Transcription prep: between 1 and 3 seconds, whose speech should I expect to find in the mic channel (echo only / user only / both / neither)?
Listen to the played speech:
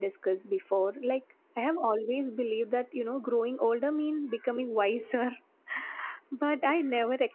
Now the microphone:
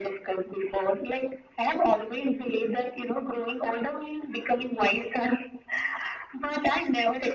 echo only